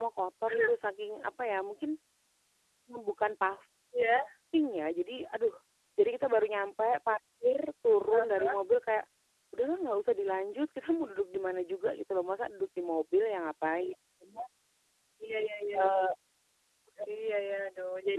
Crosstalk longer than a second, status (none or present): none